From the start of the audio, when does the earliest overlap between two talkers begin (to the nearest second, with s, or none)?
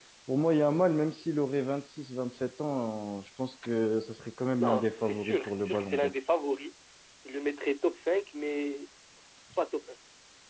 5 s